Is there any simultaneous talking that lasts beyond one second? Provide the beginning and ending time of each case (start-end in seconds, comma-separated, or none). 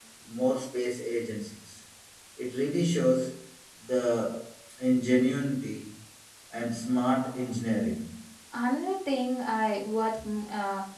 none